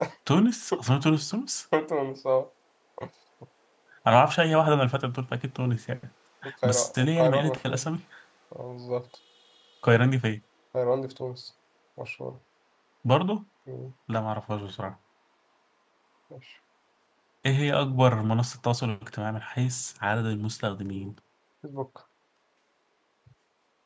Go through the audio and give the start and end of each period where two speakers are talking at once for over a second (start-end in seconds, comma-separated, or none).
6.6-7.9